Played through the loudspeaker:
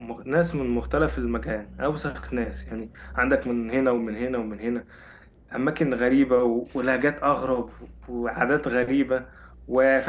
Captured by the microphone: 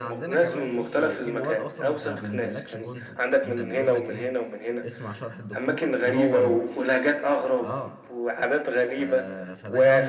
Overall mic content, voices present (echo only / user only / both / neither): both